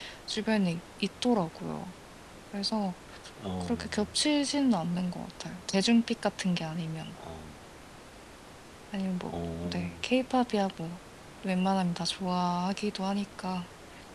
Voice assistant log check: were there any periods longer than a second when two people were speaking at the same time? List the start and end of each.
none

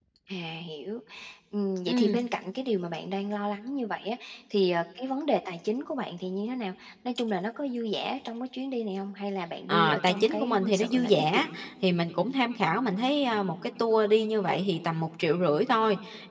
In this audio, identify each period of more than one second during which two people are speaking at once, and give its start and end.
9.7-11.5

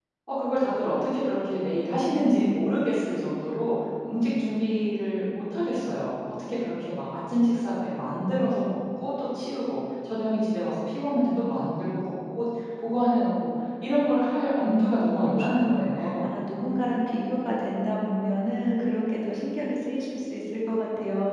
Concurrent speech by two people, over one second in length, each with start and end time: 14.6-16.3

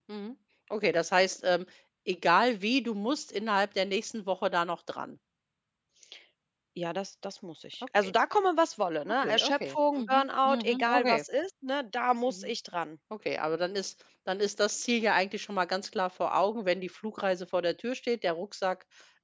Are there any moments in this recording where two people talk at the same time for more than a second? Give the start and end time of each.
9.2-11.2

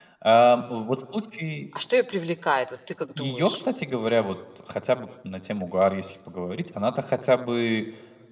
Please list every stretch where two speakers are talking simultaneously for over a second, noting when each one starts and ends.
none

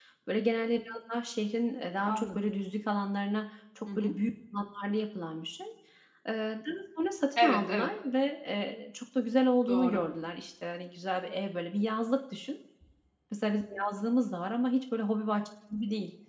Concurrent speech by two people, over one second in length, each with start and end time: none

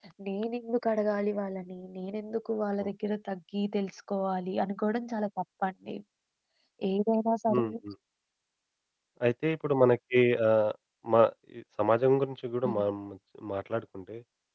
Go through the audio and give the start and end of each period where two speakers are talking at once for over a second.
none

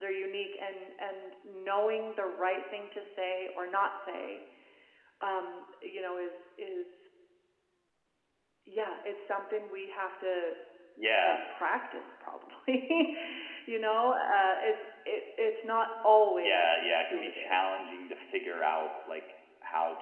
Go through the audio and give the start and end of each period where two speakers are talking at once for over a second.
16.4-17.7

